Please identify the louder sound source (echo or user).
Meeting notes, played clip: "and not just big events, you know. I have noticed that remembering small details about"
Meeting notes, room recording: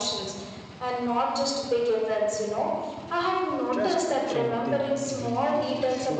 echo